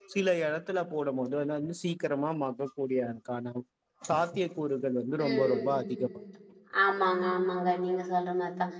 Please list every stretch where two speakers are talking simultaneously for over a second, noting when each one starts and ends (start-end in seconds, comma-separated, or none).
none